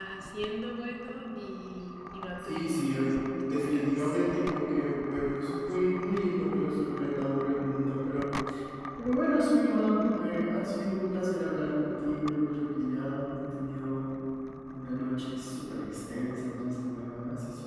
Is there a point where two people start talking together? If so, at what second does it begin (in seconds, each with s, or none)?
2.4 s